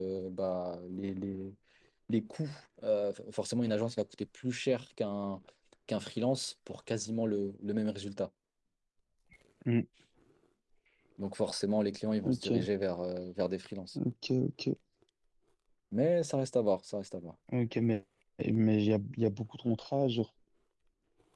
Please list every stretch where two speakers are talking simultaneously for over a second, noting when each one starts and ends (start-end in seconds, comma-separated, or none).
none